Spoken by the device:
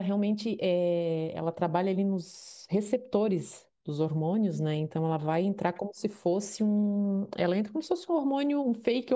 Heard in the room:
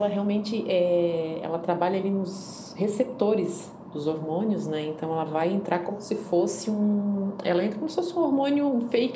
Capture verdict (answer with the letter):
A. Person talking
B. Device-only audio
B